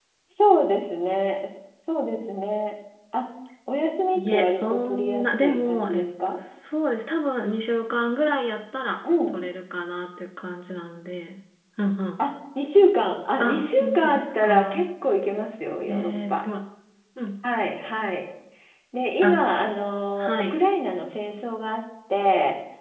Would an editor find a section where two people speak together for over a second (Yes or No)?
Yes